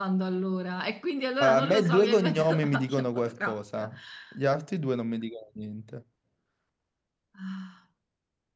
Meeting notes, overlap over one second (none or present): present